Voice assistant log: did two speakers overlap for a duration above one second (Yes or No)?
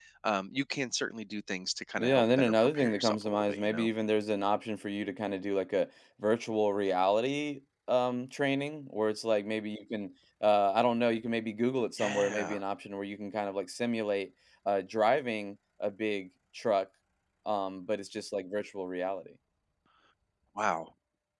Yes